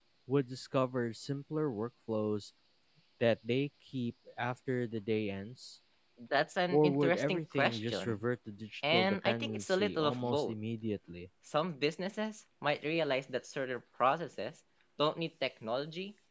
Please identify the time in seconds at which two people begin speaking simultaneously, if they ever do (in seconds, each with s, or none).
6.7 s